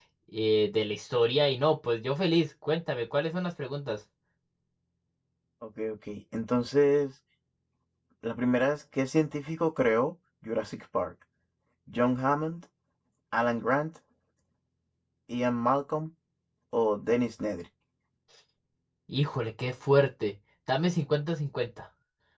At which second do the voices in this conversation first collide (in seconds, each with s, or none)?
none